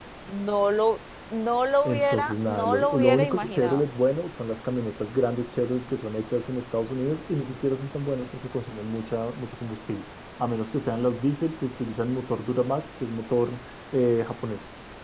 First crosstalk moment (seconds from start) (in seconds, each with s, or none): 1.9 s